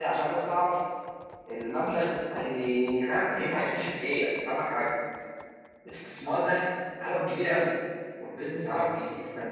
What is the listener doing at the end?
listening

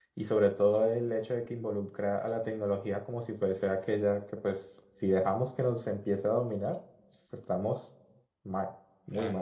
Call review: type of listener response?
taking over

